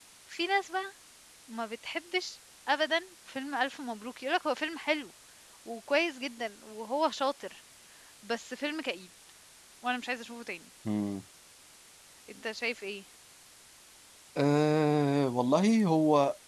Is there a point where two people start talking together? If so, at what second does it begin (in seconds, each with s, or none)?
none